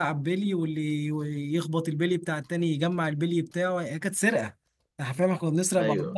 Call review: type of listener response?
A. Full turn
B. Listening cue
B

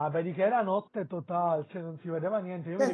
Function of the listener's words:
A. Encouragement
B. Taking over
B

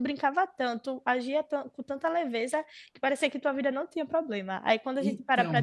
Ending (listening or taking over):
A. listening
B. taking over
A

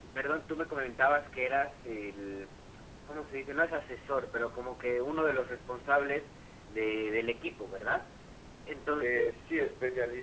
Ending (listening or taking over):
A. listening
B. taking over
B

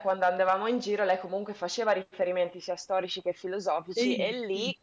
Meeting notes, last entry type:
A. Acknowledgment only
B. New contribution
A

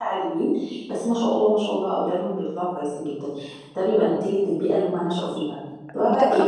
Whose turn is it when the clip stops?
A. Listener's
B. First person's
B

